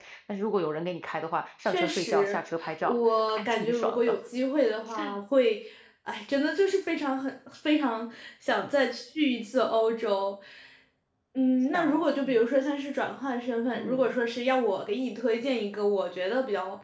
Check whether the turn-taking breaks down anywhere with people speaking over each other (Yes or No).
Yes